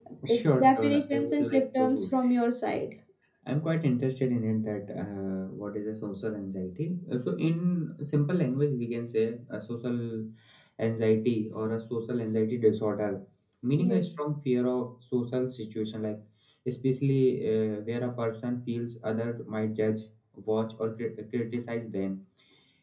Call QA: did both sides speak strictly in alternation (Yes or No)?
No